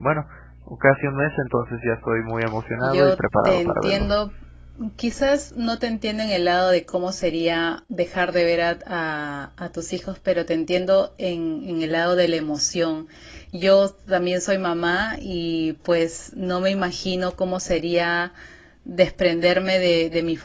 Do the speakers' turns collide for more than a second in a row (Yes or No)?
Yes